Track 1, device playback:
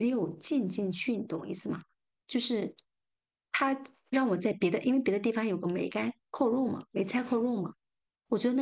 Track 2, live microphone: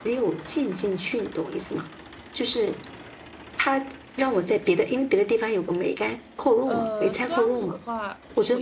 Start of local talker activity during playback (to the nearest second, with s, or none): 7 s